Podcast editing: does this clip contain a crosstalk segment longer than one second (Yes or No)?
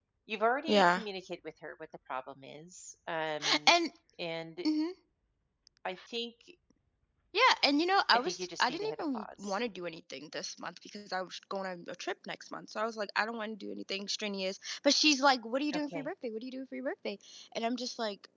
Yes